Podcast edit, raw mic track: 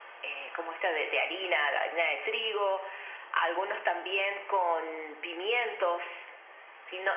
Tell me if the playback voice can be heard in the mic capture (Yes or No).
Yes